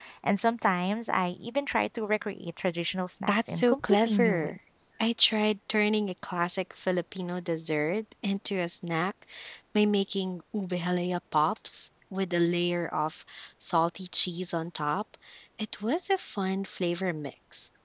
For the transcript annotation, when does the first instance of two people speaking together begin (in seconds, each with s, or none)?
3.3 s